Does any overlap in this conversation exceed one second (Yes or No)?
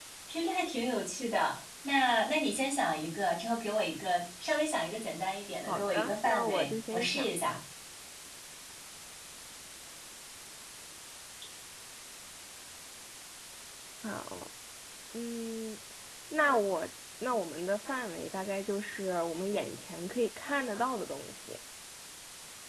Yes